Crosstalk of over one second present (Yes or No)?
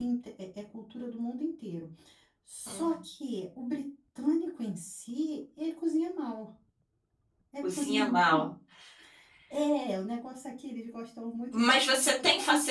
Yes